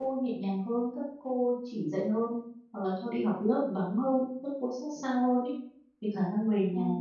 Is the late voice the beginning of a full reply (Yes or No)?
No